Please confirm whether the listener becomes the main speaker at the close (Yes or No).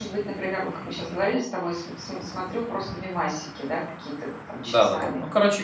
Yes